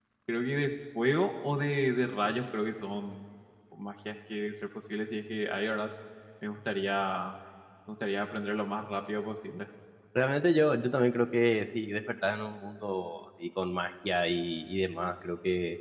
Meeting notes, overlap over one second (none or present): none